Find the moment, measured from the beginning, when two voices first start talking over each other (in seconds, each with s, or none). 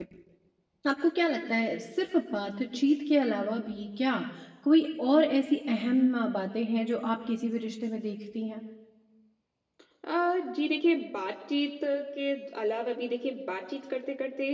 none